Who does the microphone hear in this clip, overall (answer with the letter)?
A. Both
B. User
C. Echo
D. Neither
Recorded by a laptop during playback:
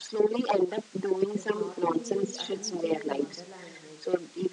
A